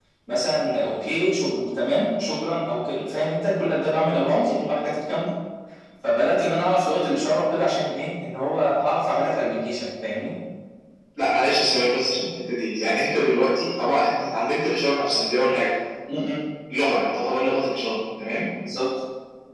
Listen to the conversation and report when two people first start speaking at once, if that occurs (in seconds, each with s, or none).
none